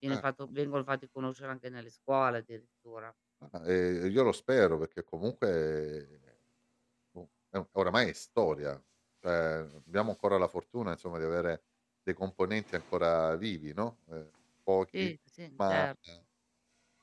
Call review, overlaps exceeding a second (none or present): none